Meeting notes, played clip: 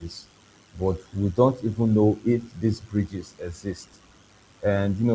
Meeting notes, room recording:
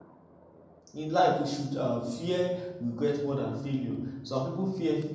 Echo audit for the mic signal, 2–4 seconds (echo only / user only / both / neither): user only